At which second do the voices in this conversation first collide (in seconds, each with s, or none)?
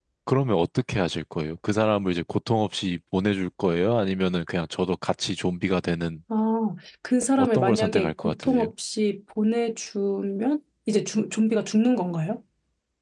7.4 s